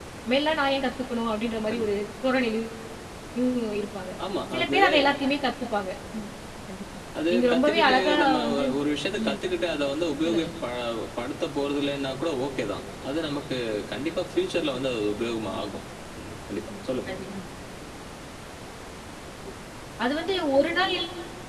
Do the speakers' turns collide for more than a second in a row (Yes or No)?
Yes